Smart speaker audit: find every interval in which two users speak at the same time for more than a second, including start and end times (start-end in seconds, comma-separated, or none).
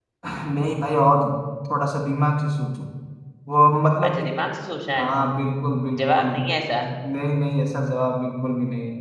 none